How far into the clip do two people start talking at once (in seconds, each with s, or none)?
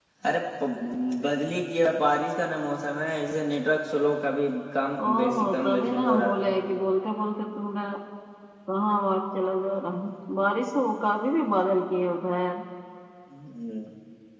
5.0 s